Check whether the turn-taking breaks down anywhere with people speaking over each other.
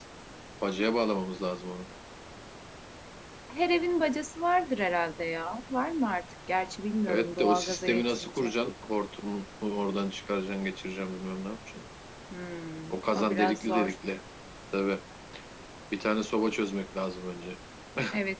Yes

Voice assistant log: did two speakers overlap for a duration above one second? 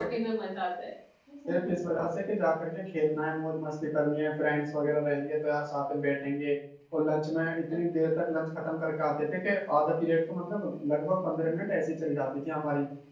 No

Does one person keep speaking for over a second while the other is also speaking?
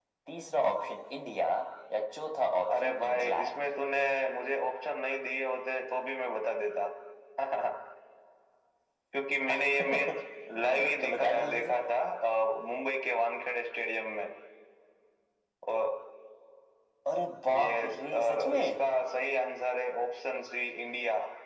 Yes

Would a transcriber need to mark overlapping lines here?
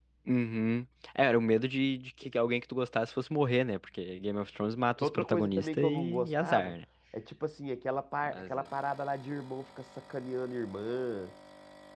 Yes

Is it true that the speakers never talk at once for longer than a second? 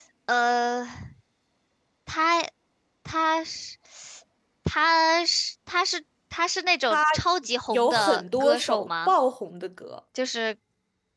No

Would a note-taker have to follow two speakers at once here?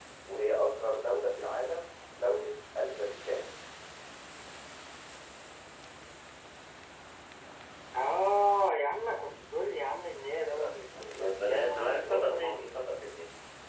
Yes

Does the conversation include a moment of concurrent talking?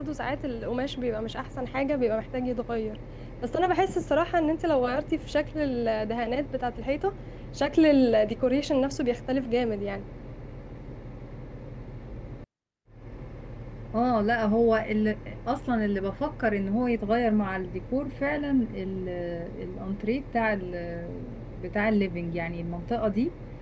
No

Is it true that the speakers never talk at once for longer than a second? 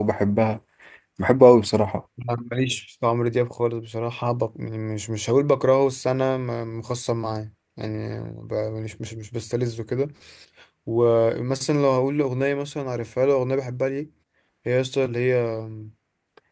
Yes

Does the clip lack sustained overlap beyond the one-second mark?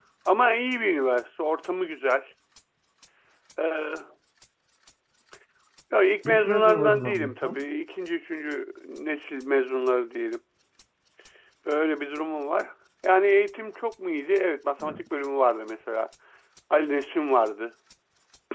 No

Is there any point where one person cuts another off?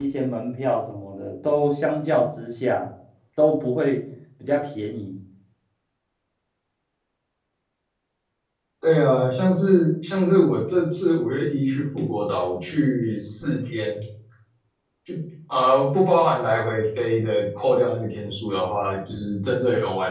No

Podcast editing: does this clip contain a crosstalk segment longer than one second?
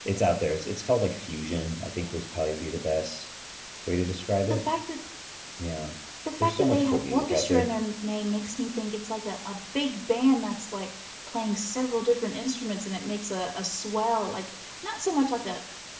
Yes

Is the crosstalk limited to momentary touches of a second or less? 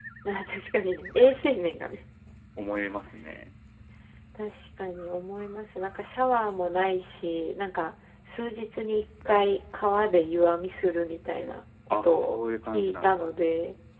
No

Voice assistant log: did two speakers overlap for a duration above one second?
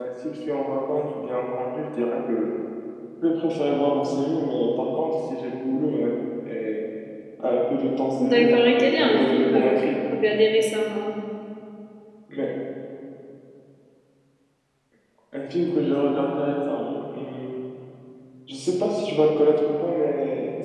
Yes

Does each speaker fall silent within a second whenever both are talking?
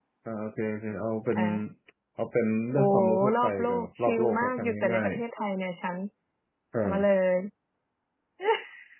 No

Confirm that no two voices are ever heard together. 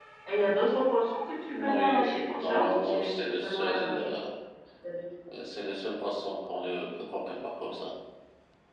No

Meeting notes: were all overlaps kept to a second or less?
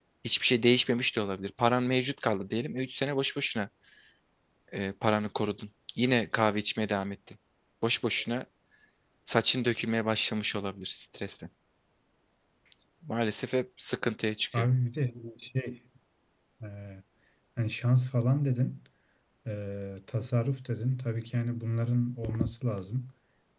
Yes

